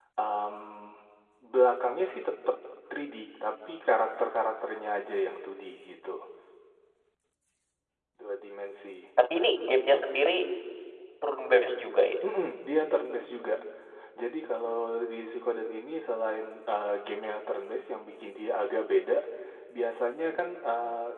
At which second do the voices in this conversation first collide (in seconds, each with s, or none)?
none